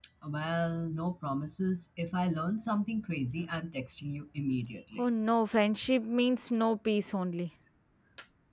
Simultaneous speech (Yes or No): No